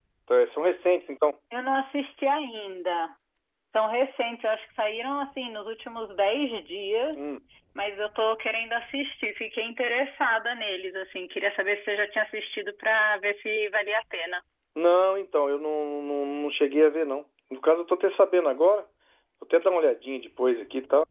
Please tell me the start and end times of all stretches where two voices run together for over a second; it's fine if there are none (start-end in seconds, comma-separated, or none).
none